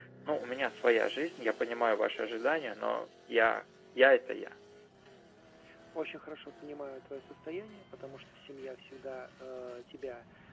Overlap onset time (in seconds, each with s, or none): none